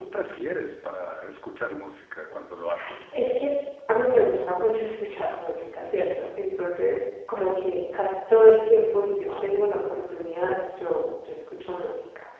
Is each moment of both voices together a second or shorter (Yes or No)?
Yes